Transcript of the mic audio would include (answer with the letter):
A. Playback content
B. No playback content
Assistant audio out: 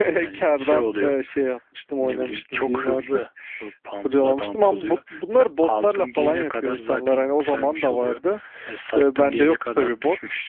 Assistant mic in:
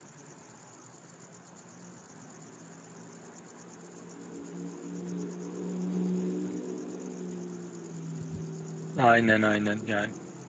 B